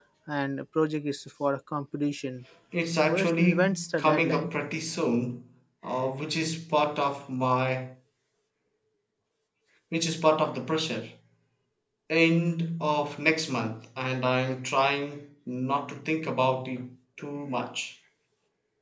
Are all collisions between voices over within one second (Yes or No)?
No